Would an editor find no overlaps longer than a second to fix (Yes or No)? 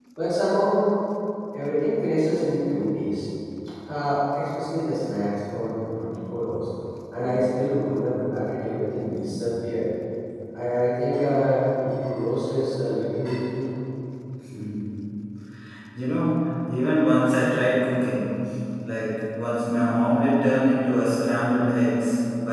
Yes